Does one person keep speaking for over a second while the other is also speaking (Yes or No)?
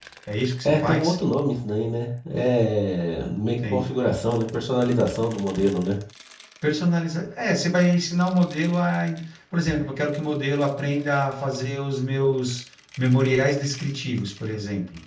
No